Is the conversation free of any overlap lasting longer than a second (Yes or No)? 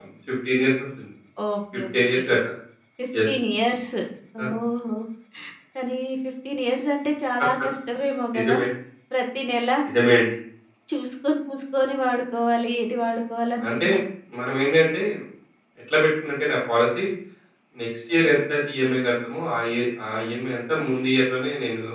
Yes